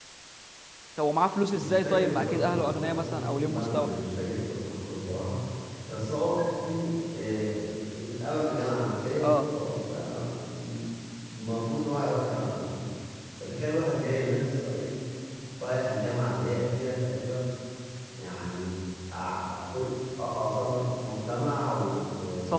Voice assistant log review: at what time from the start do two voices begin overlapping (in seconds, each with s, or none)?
1.5 s